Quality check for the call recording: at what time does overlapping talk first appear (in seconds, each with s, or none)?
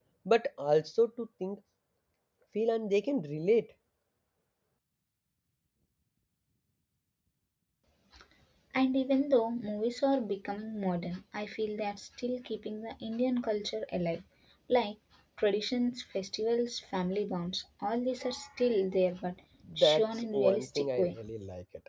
19.6 s